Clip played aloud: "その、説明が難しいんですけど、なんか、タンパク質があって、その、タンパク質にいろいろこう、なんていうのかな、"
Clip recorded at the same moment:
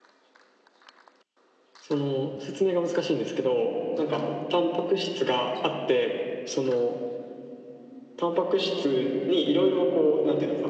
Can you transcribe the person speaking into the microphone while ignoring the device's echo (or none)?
none